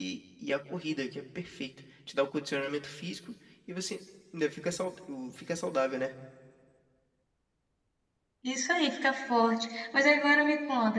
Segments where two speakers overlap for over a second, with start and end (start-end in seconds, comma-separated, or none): none